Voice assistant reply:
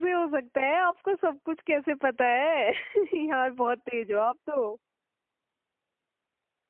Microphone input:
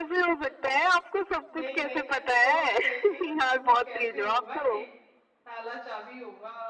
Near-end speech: present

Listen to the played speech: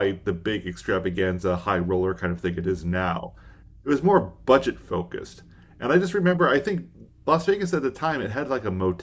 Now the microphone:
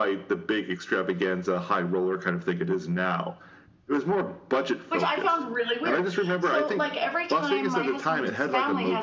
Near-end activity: present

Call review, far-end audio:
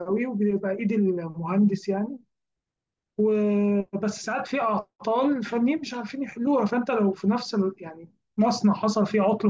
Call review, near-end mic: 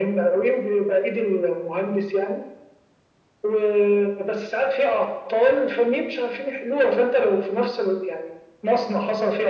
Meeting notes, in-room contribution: none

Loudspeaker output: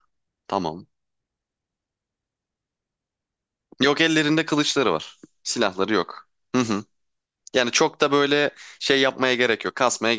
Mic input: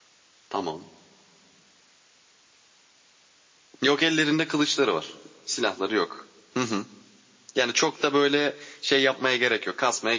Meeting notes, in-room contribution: none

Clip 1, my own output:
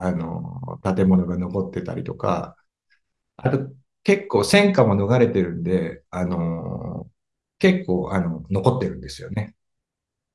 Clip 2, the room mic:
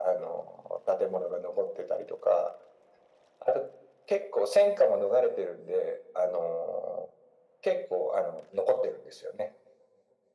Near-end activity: none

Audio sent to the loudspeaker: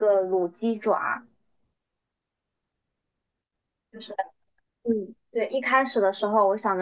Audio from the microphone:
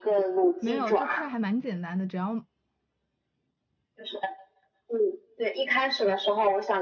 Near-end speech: present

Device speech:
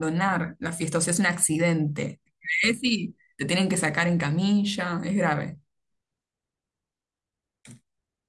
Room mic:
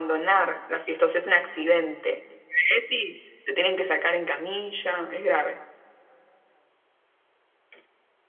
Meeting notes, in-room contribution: none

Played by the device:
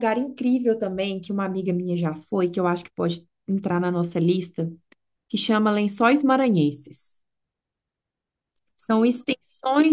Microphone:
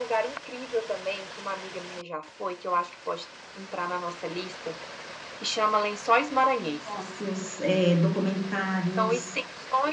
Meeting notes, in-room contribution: present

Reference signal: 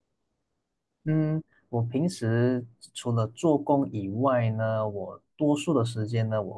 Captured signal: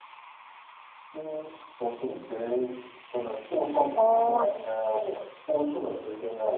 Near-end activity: present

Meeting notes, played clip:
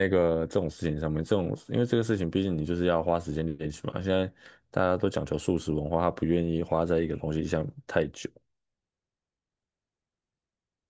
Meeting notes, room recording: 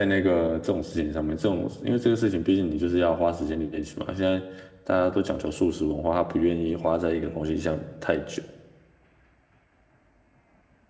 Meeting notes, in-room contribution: none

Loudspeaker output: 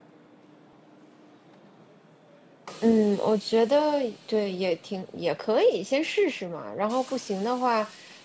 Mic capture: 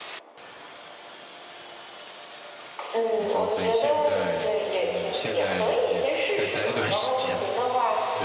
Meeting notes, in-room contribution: present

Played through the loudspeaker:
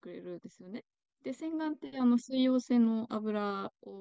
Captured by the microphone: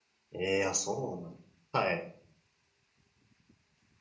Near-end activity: present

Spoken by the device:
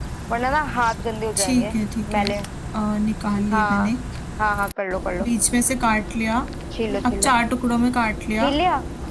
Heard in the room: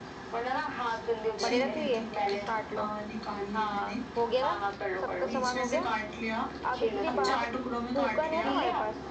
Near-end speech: present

